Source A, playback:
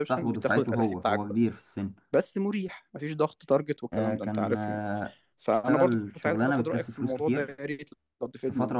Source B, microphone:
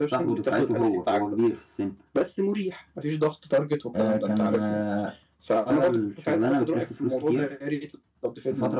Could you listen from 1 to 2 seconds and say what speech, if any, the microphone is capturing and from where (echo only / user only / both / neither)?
echo only